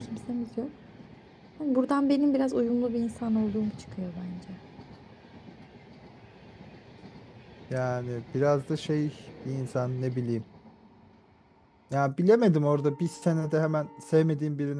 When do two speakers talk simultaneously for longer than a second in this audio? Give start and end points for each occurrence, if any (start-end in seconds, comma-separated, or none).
none